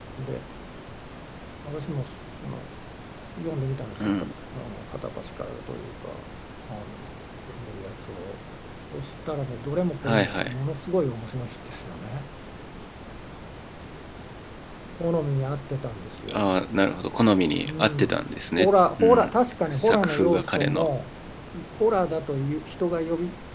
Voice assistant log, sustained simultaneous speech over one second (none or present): present